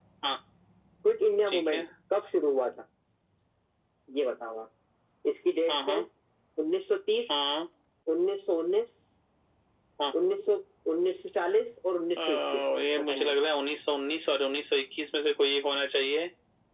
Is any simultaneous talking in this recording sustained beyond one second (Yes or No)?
Yes